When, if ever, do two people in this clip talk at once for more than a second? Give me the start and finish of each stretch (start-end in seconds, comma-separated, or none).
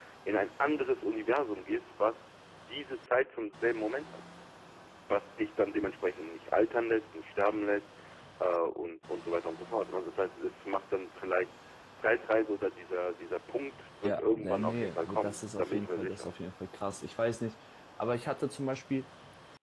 14.0-16.3